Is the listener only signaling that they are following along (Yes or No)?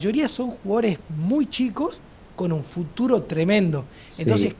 Yes